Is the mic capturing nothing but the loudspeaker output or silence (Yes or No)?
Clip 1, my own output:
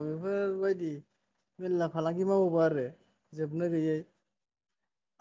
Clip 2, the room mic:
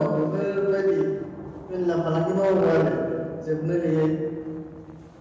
Yes